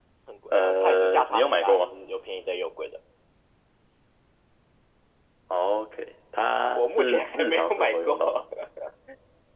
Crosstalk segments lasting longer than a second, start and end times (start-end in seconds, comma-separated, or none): 0.5-1.9, 6.7-8.2